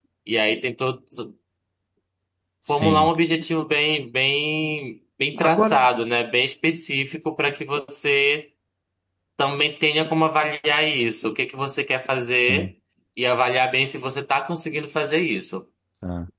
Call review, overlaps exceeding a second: none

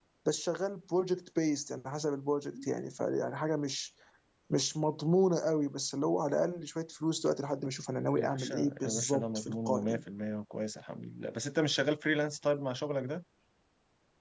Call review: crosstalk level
present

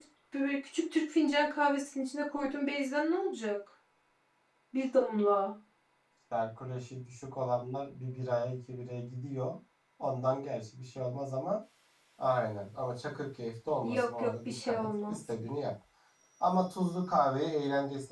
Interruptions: present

